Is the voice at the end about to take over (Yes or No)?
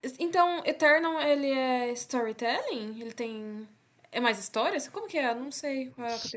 Yes